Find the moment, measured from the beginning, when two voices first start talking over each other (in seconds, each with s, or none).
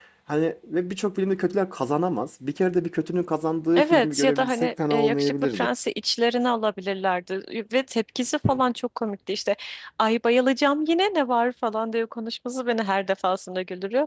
3.8 s